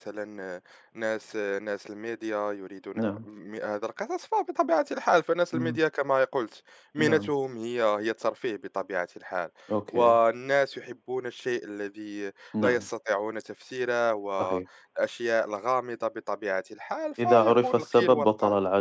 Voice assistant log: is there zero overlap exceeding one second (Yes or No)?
No